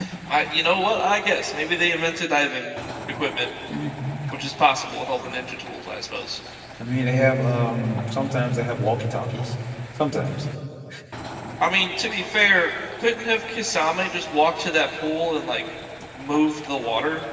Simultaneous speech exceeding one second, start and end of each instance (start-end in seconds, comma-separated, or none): none